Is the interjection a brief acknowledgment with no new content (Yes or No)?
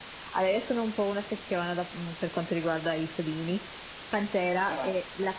Yes